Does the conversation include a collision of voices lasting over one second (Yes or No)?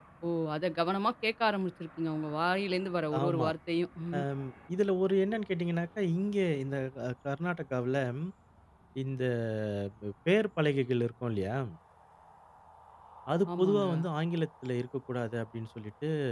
No